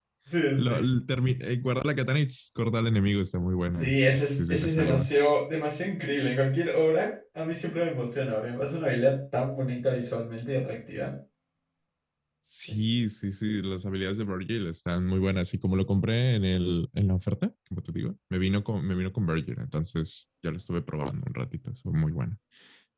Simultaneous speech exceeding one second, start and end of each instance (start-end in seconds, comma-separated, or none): 3.8-5.1